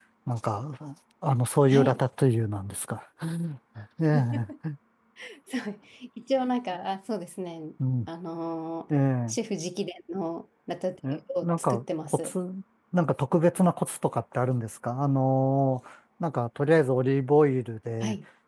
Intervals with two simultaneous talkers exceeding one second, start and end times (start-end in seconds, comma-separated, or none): 11.1-12.3